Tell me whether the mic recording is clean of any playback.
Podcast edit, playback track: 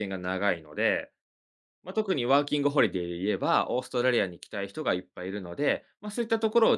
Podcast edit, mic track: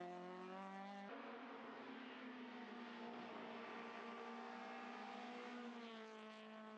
Yes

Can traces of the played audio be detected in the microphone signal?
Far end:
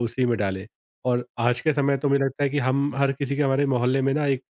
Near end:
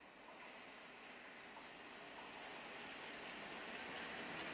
No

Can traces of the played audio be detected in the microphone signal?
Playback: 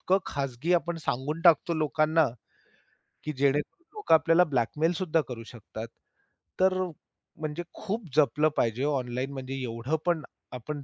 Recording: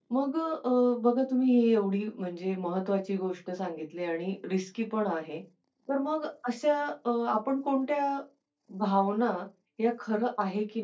No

